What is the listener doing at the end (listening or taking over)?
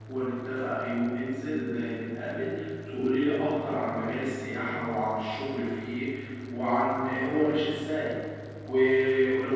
listening